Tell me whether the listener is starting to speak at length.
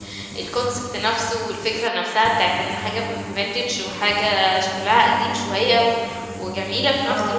Yes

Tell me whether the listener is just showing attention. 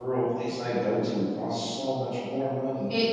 Yes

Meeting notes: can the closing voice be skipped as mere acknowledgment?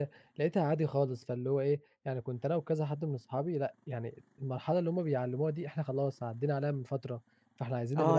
No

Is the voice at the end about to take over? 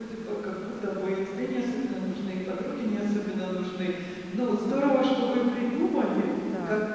No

